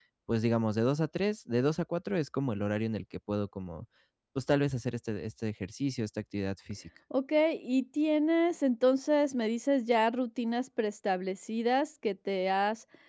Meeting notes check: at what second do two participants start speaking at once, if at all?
none

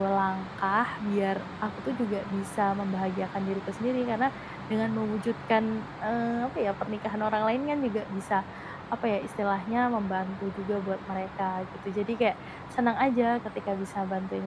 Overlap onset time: none

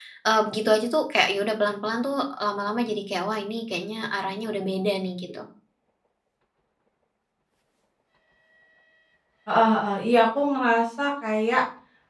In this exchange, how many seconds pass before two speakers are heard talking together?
none

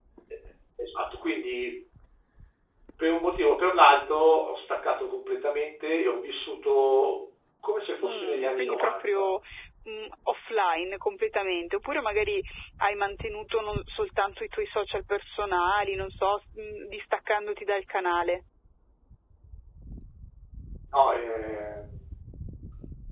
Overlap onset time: 8.0 s

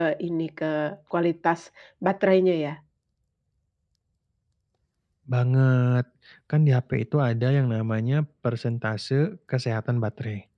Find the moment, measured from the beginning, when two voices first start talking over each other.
none

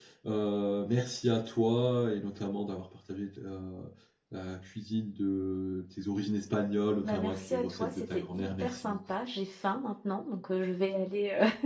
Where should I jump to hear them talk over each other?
7.0 s

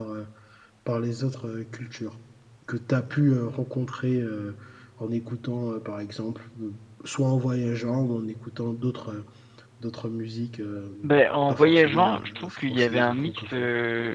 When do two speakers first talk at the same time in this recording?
11.0 s

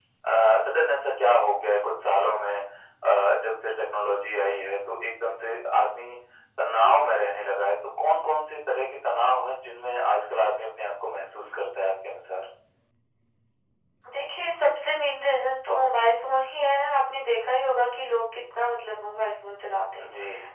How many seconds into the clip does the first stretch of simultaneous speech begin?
none

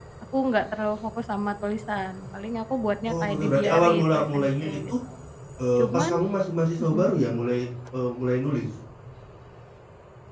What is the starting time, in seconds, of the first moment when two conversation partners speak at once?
3.0 s

